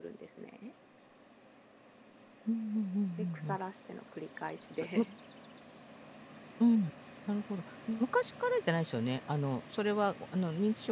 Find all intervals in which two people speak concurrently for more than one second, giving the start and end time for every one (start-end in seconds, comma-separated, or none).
none